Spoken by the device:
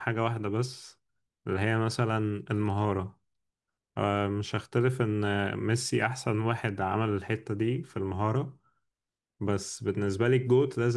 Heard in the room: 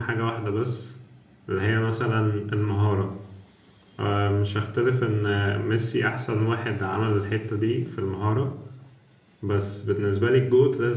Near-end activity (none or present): none